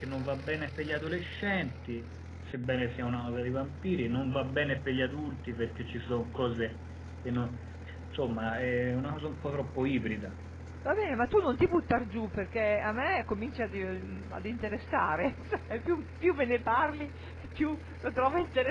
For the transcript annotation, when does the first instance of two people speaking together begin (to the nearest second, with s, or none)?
none